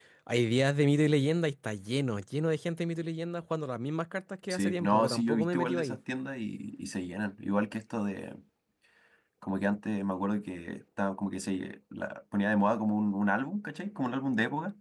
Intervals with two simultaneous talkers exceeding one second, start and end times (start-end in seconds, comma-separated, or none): 4.5-6.0